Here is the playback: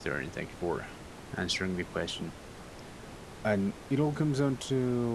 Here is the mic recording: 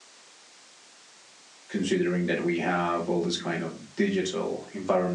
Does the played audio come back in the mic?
No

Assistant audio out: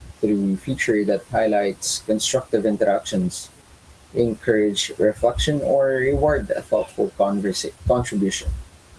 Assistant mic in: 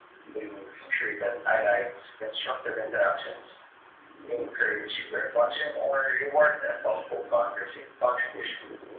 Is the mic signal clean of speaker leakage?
No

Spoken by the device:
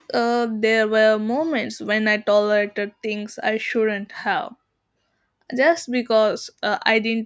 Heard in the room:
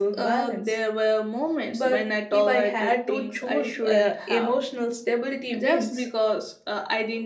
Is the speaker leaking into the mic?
Yes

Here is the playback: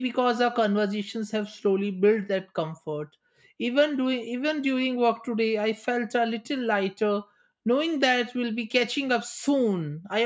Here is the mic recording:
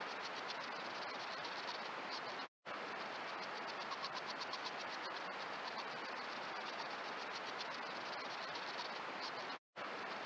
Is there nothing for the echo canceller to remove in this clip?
Yes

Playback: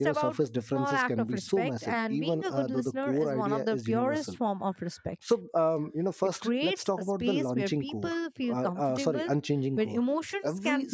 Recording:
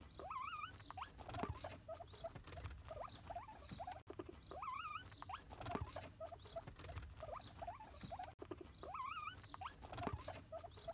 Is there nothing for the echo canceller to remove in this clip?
Yes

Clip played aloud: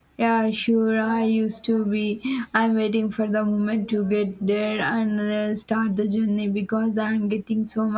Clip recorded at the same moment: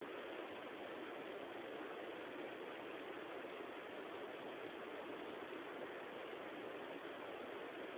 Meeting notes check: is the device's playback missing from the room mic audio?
Yes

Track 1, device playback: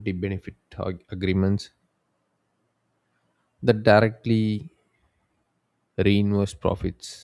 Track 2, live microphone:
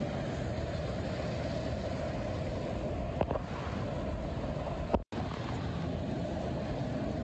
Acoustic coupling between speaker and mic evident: No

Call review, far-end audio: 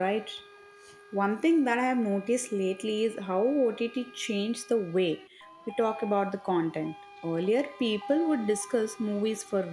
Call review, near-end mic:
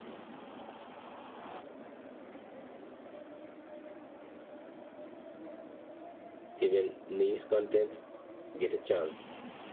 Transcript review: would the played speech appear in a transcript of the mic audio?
No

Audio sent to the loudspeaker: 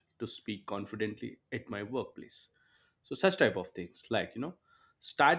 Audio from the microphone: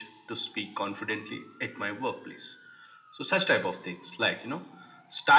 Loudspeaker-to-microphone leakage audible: Yes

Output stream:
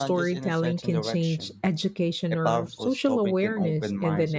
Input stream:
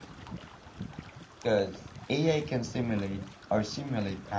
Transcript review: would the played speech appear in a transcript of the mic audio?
No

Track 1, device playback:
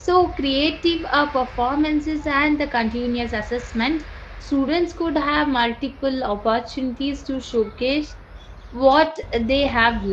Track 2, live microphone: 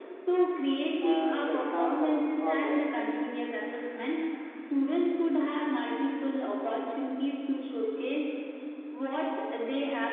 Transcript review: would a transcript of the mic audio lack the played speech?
No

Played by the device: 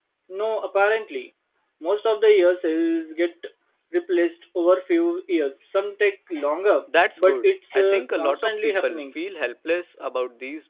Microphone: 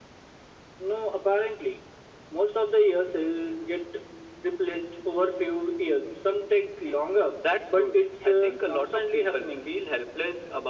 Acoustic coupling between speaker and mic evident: Yes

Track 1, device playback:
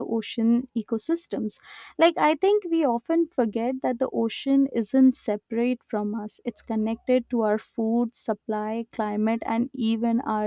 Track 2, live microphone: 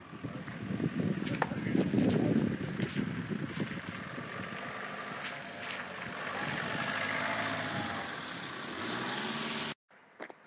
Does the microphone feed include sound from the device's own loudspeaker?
No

